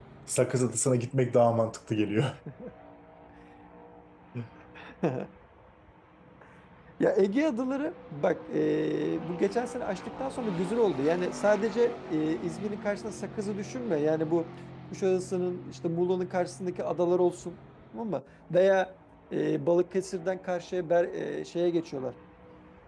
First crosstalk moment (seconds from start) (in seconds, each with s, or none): none